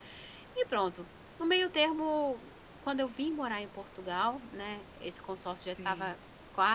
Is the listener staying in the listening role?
Yes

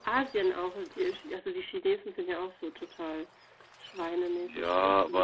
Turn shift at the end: Yes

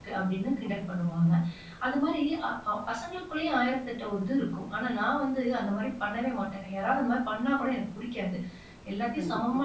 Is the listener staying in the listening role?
Yes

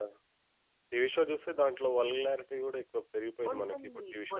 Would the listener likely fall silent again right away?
No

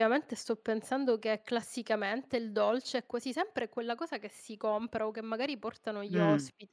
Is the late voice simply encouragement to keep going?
No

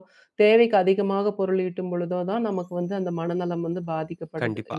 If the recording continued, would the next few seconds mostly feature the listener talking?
Yes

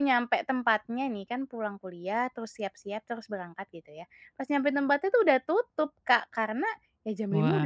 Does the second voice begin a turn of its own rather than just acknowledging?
No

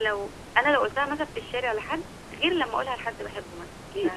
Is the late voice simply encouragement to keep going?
No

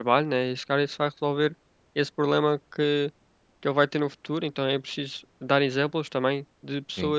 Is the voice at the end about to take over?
No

